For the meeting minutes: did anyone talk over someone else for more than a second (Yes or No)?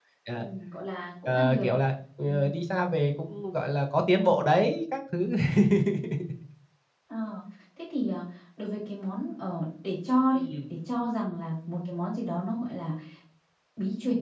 No